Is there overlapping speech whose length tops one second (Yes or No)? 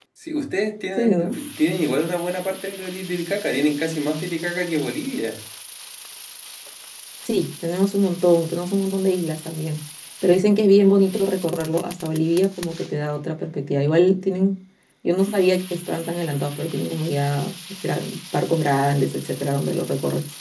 No